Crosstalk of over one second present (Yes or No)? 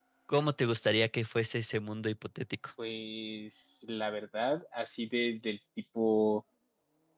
No